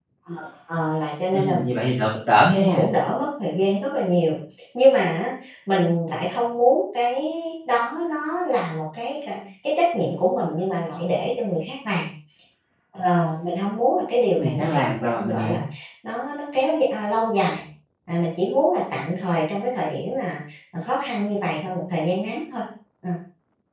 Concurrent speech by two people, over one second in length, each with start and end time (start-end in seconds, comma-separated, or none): 14.4-15.6